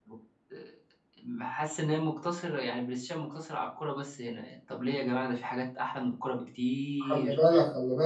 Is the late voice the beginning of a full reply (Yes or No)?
Yes